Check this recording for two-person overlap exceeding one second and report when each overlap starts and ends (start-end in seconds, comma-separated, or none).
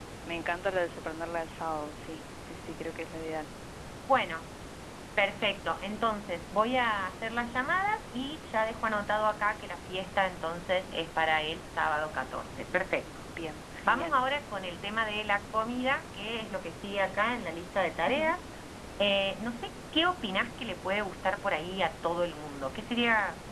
none